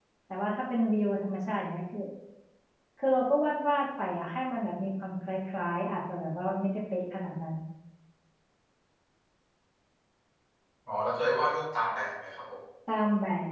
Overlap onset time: none

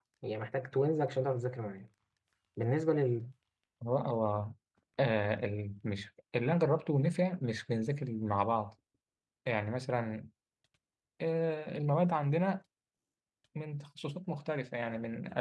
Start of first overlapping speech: none

